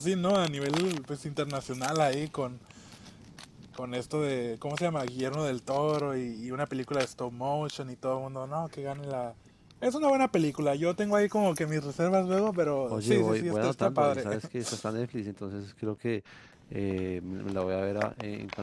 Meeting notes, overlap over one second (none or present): present